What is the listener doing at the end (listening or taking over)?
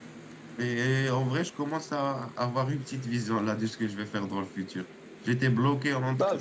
listening